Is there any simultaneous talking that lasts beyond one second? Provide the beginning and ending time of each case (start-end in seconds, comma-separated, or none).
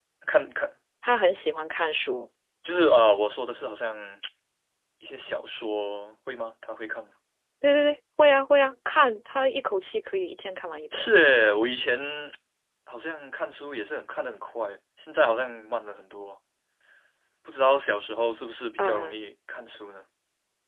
none